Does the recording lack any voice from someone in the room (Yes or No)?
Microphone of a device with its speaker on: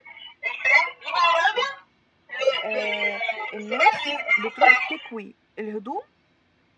No